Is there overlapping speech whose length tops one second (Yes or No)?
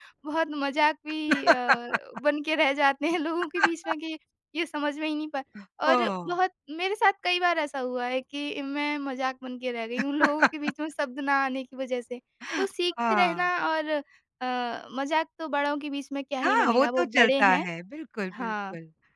Yes